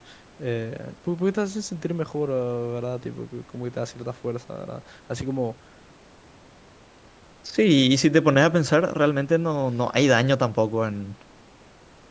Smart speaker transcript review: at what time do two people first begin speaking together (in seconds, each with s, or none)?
none